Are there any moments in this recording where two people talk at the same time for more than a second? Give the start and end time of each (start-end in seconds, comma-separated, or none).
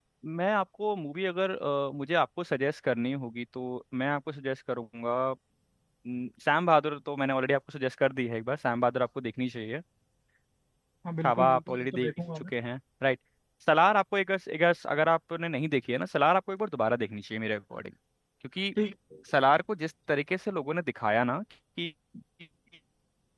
11.2-12.5